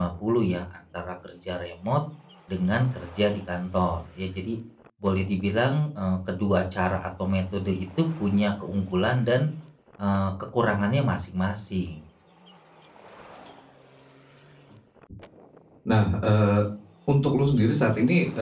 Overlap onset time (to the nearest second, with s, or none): none